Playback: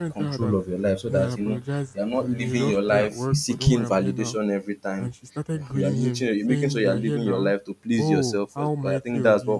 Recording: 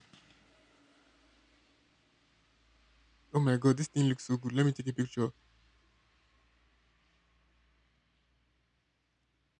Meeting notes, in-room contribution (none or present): present